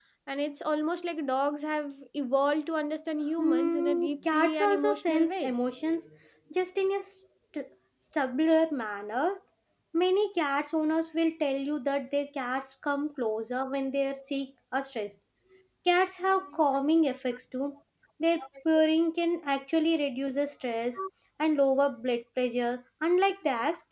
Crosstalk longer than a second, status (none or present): present